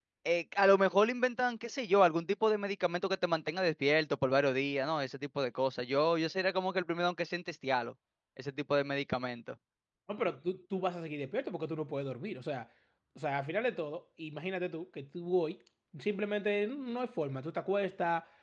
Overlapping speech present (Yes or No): No